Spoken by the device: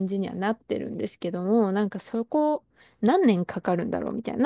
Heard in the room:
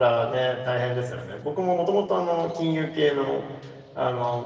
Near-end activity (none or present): present